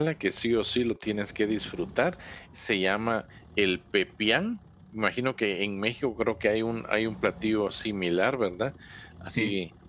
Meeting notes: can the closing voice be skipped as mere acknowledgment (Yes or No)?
Yes